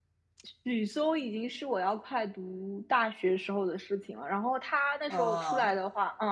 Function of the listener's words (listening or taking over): listening